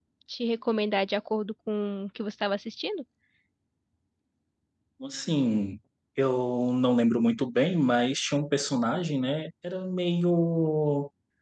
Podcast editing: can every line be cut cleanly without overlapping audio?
Yes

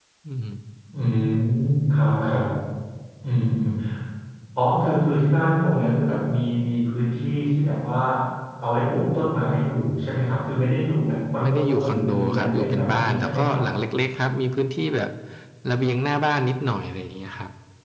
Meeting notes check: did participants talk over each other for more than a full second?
Yes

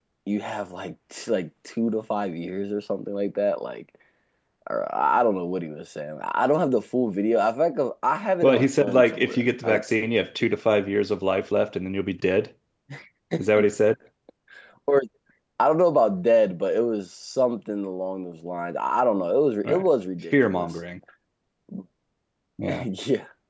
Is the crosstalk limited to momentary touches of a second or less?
No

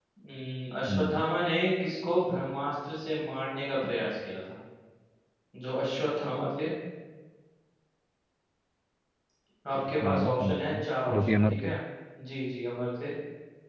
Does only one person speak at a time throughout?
No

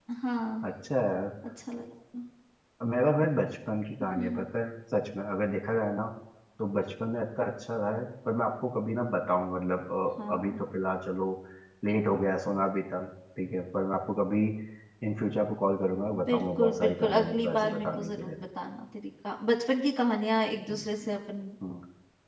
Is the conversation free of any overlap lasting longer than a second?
No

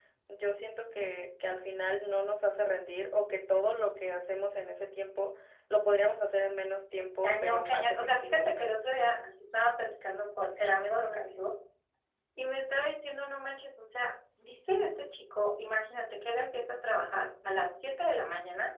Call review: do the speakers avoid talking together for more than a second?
No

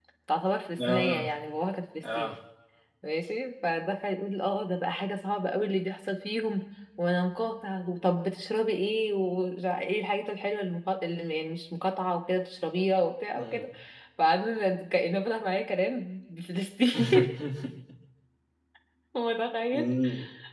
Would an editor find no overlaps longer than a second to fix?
Yes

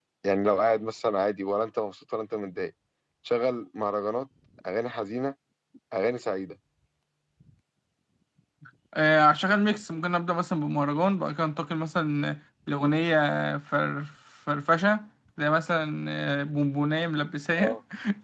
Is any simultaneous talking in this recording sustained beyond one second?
No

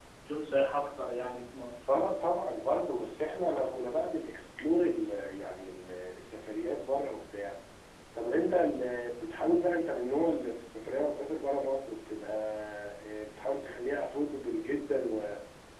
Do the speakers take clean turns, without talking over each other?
Yes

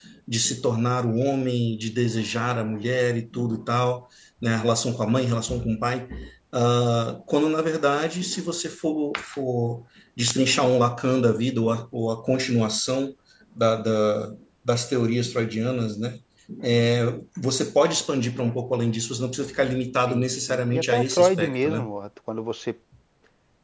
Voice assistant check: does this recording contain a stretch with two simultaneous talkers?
Yes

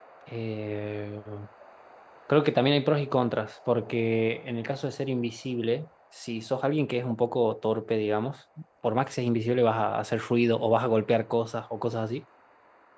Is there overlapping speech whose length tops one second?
No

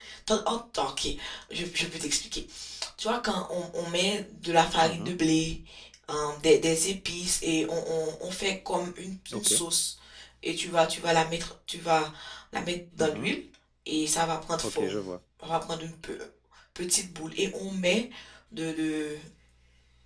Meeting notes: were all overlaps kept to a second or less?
Yes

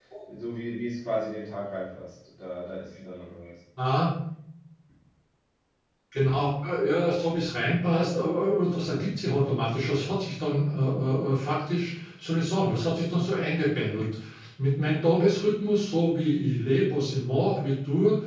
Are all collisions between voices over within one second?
Yes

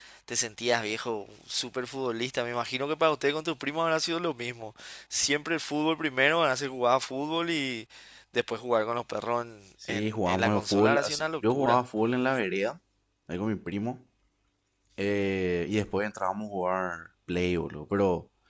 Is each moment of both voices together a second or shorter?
No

